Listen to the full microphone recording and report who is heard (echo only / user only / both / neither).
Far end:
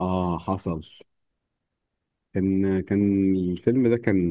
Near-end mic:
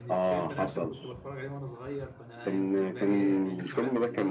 both